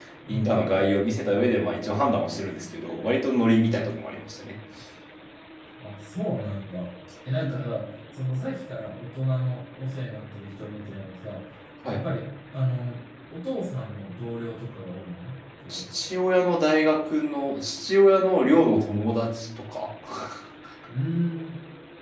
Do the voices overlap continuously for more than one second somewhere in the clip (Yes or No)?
No